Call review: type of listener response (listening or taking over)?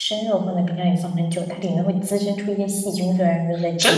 taking over